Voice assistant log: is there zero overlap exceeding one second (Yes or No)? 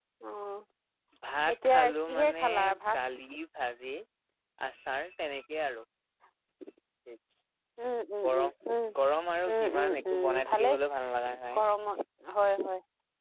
No